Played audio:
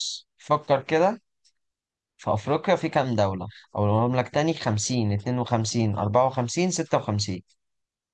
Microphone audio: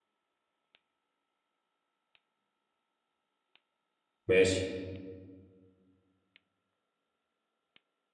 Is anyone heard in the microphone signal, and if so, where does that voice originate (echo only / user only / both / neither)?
user only